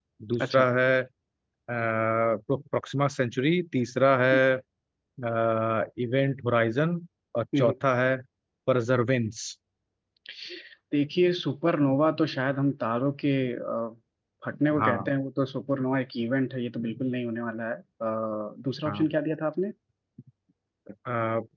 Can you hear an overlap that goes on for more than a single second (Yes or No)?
No